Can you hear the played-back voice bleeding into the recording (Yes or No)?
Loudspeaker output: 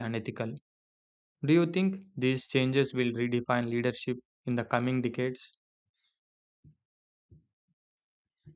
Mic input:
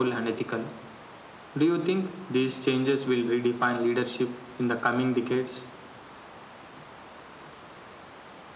Yes